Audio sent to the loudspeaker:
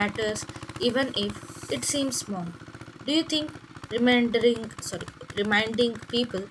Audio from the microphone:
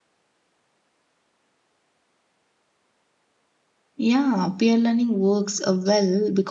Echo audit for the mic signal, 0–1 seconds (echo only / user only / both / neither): neither